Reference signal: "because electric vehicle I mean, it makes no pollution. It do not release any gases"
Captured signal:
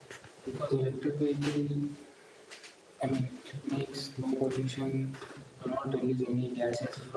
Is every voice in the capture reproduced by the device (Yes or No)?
Yes